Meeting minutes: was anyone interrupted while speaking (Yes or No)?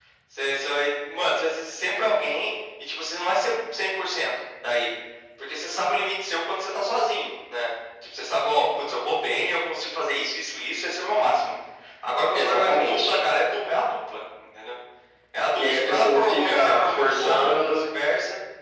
Yes